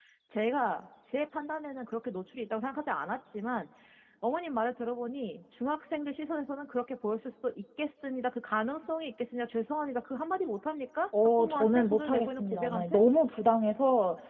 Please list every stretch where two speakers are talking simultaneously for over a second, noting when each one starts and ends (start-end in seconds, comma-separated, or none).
11.4-13.0